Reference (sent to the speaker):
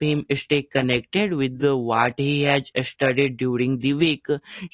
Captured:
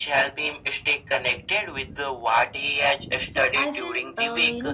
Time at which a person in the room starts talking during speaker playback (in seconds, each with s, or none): 3.3 s